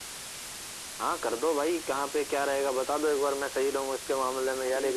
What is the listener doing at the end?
taking over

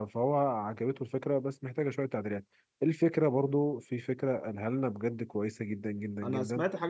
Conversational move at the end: taking over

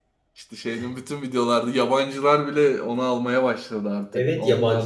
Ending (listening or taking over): taking over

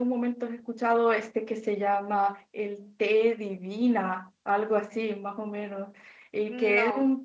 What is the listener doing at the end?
listening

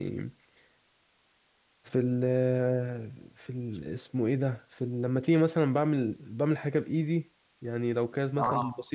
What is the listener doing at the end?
listening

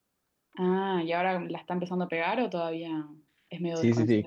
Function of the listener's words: taking over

